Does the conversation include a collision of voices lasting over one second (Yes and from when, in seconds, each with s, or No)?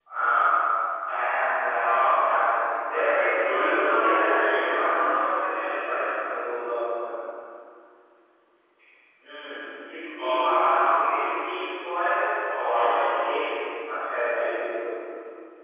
Yes, from 2.9 s